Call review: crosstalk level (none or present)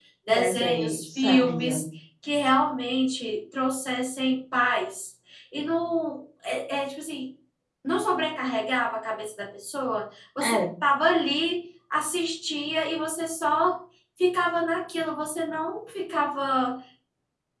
present